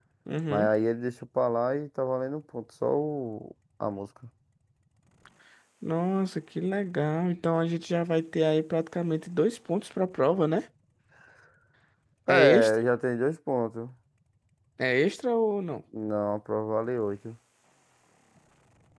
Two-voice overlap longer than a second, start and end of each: none

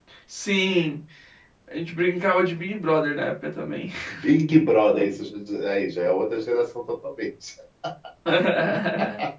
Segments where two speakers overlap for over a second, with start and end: none

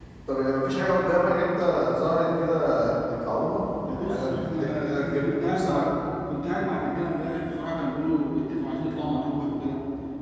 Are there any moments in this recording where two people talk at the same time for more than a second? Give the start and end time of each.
3.9-5.9

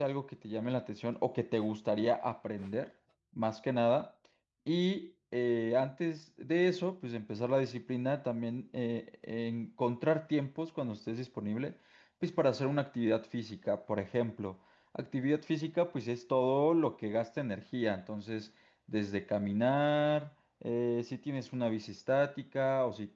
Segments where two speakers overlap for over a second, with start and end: none

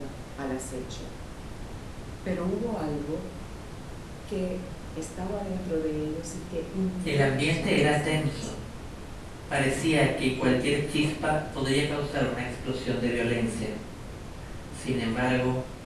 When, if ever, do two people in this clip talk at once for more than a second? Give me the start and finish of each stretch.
7.0-8.5

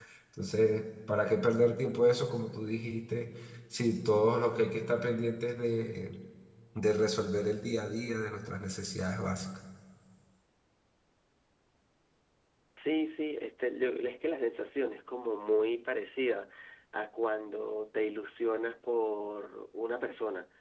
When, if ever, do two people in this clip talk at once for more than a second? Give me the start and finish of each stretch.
none

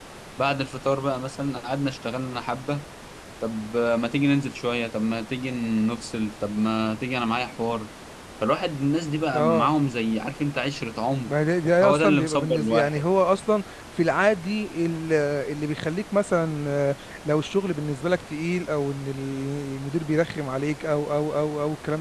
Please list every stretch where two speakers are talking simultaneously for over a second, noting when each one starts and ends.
11.8-13.0

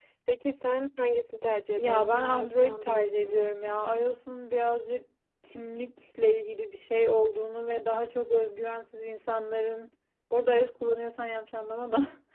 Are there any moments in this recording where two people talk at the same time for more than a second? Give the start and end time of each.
1.8-3.4

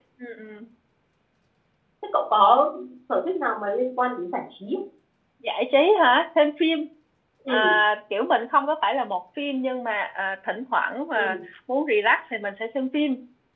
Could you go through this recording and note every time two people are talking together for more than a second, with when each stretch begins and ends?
none

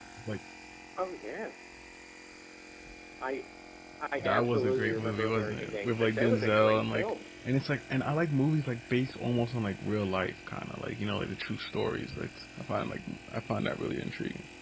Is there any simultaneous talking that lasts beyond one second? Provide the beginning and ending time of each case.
4.2-7.1

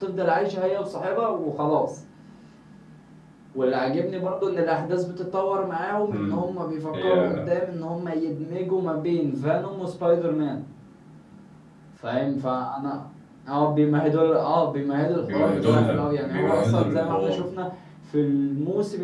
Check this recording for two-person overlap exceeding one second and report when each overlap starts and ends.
15.2-17.4

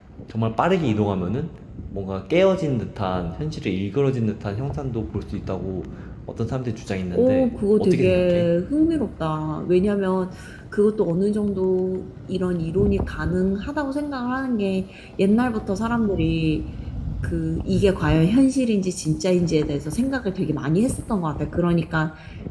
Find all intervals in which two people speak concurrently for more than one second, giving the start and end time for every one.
7.1-8.5

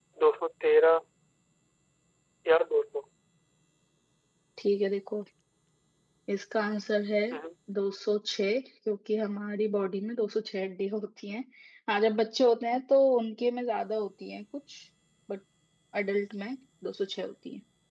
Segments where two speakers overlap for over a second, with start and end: none

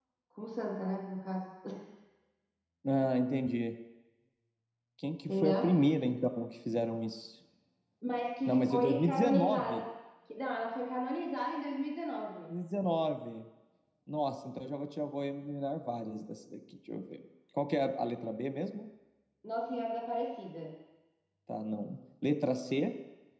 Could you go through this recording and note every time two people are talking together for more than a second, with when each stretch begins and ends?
8.5-9.8

